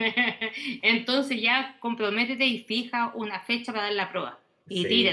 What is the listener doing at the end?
taking over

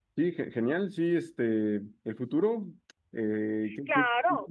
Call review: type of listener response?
taking over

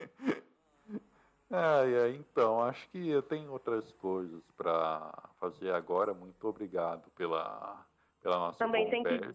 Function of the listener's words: taking over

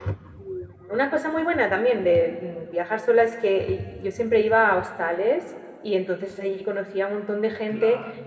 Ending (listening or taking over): listening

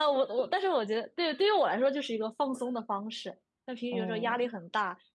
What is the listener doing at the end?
listening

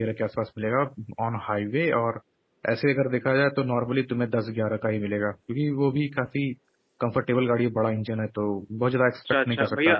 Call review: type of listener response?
taking over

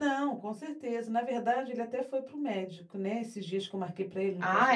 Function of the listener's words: listening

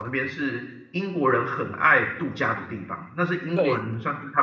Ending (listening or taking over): listening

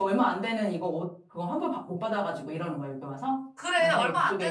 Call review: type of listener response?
taking over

